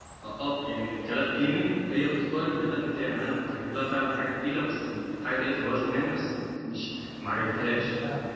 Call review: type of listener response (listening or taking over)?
taking over